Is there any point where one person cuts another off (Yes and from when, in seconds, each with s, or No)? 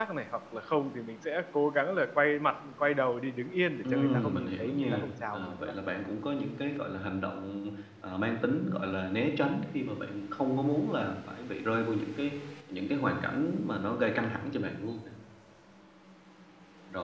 Yes, from 3.8 s